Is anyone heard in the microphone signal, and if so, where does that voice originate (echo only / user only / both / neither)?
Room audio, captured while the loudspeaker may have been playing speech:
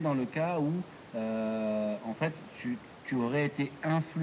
echo only